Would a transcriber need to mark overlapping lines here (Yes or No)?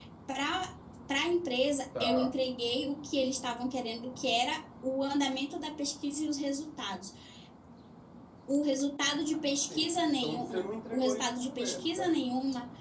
Yes